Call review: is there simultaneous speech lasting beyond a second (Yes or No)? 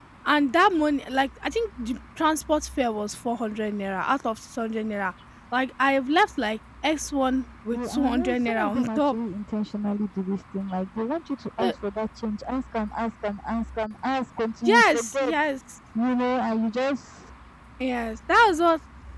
Yes